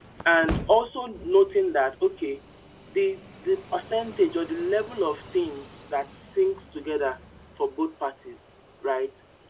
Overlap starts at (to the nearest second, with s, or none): none